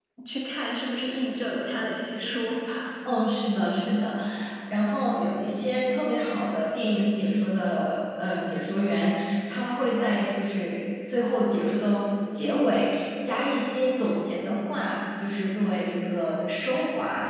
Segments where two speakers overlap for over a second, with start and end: none

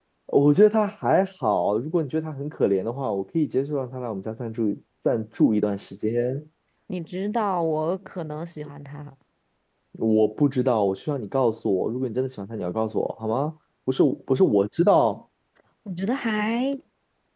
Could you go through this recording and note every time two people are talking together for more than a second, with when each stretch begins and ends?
none

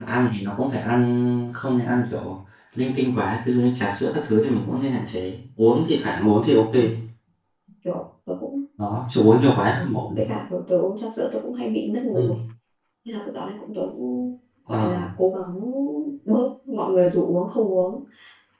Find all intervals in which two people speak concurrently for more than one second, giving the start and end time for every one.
none

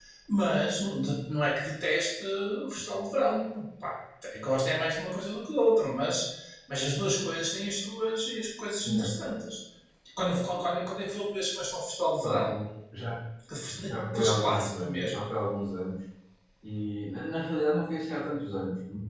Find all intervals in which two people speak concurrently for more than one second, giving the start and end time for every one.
13.9-15.3

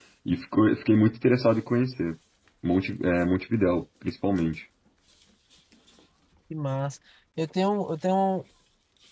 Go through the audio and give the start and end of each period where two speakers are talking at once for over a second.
none

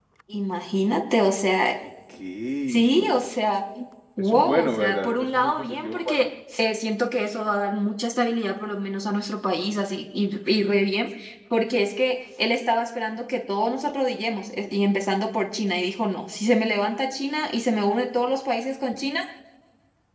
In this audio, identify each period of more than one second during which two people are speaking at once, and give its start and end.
4.2-6.2

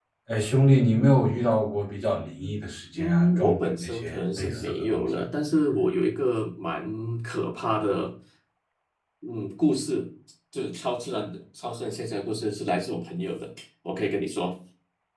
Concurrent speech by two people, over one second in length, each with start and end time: 3.0-5.2

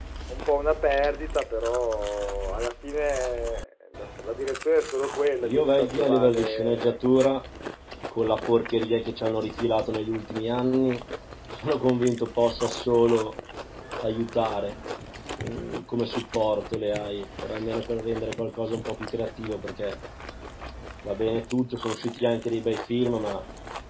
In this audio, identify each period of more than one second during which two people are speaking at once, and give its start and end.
5.4-7.0

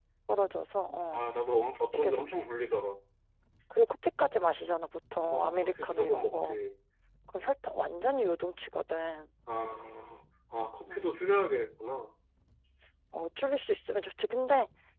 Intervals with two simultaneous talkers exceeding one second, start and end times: 5.3-6.6

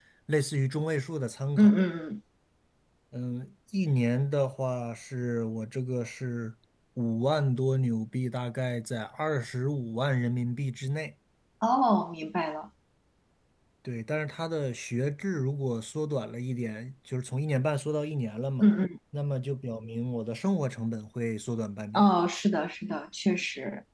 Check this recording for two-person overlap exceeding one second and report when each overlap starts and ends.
none

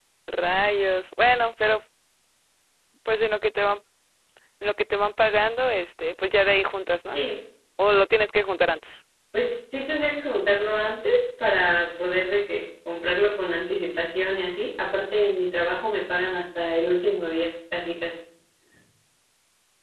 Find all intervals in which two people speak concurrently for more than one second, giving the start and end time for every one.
none

